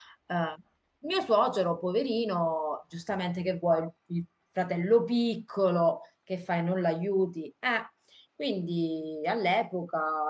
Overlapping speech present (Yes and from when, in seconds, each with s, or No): No